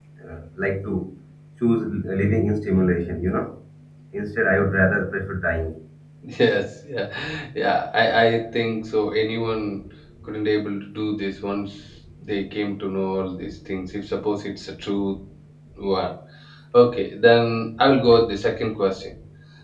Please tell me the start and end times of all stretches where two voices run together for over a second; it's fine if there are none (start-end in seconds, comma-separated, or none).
none